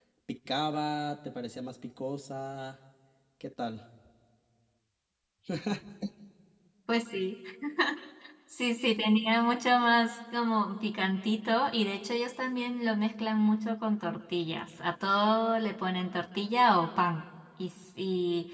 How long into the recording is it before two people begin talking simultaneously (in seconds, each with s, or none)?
none